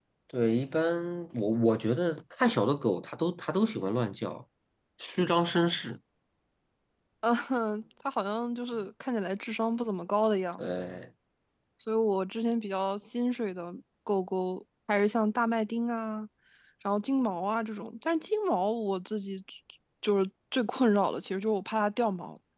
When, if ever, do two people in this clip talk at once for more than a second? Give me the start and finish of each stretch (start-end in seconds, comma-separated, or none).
none